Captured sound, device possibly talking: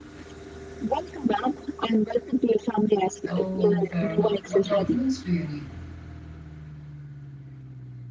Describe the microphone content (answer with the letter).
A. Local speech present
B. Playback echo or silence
A